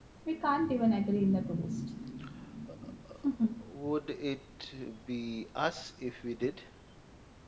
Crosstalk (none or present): none